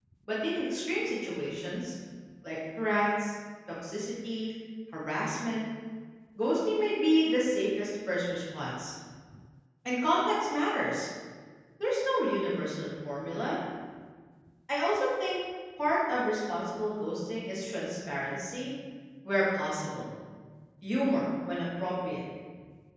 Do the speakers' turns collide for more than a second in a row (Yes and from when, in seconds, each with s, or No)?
No